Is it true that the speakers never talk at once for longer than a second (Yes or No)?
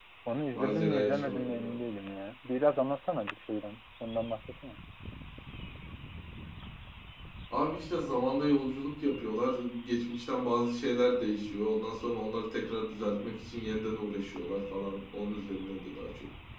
No